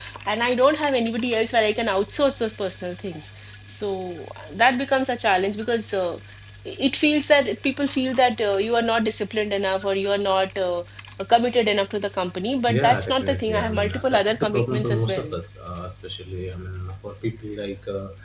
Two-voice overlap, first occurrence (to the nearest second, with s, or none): 13 s